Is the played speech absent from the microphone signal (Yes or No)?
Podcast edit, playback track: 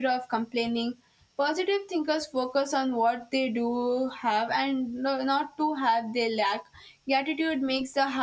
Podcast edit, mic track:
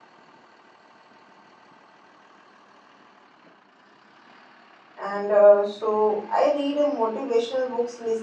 Yes